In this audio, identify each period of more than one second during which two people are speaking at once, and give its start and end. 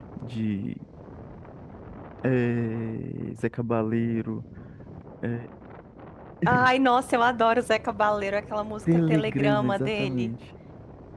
8.9-10.3

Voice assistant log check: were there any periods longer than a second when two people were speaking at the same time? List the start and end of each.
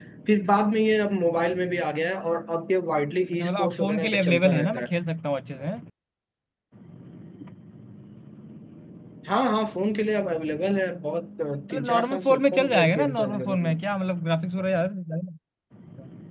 3.3-4.9, 11.7-13.7

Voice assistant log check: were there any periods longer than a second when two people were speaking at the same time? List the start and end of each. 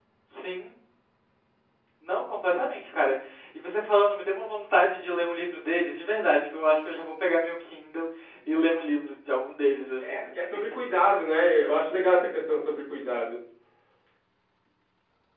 none

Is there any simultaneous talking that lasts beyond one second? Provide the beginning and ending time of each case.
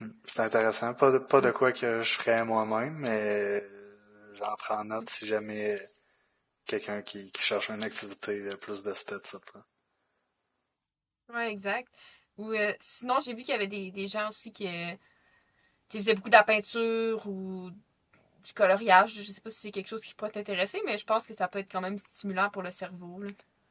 none

